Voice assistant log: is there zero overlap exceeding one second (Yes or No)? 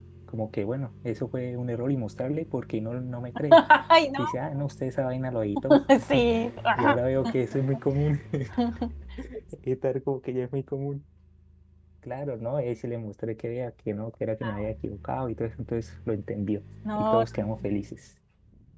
Yes